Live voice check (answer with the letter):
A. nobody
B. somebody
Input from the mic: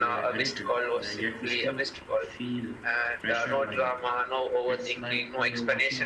B